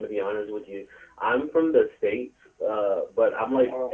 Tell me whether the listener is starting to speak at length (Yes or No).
No